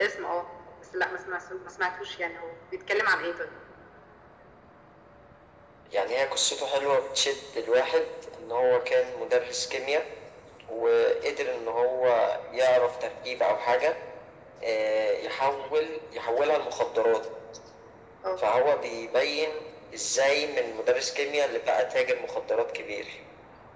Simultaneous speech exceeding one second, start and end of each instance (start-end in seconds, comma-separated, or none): none